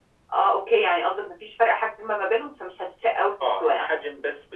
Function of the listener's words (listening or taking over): taking over